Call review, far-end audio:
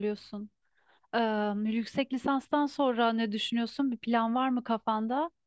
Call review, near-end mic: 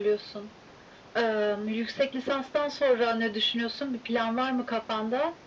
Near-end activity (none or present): none